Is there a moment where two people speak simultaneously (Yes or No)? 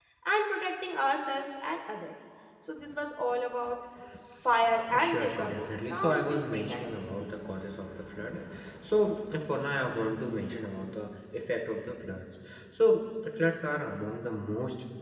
Yes